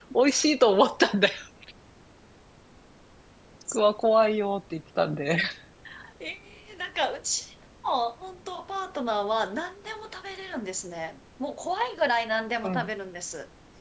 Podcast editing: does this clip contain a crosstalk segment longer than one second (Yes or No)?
No